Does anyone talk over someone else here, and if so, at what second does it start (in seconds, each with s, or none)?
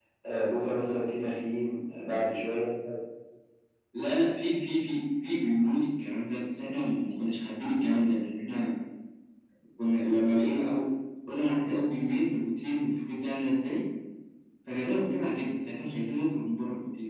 none